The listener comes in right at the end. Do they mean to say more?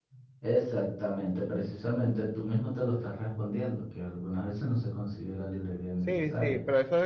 Yes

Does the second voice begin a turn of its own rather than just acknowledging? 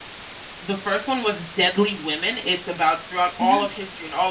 No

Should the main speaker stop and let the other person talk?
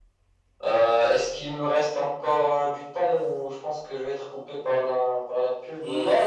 Yes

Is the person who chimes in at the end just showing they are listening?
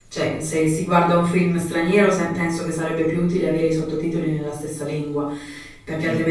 Yes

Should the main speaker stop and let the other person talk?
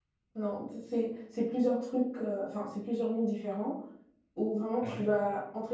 No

